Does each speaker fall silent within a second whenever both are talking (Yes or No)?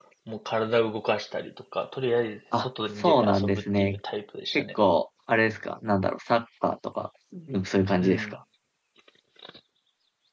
No